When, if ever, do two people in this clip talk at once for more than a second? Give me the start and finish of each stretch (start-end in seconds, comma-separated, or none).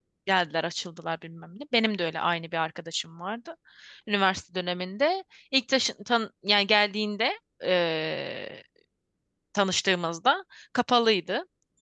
none